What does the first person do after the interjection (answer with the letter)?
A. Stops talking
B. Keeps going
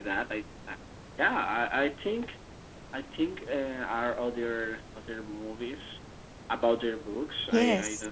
A